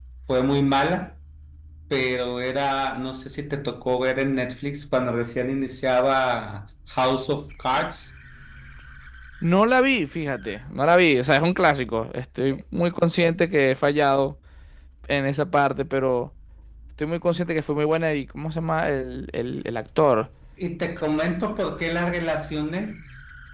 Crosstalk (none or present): none